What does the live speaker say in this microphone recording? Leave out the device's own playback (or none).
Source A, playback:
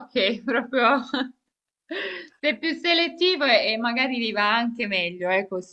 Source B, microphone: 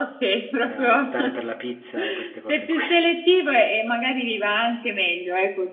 eh, optare per la pizza e queste cose qui.